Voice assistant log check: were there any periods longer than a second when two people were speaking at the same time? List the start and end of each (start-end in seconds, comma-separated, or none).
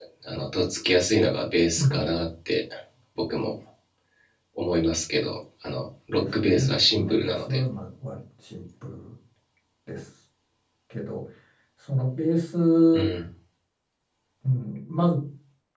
6.1-7.6